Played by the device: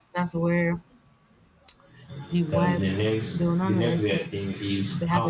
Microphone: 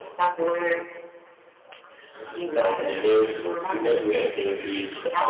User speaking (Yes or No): No